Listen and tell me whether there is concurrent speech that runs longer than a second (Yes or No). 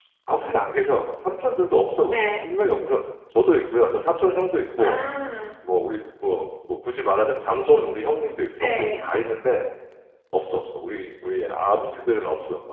No